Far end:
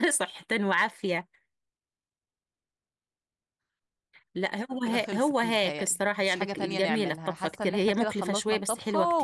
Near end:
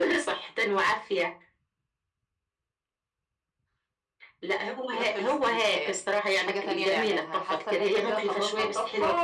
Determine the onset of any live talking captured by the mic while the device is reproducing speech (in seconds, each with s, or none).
none